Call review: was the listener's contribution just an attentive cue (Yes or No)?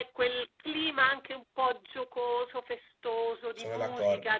Yes